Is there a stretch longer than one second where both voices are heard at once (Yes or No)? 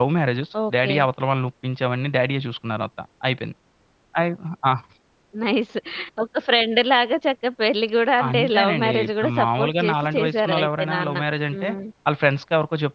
Yes